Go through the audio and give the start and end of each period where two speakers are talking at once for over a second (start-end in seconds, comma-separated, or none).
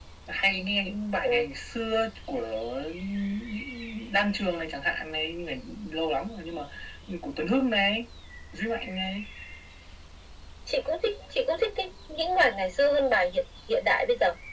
none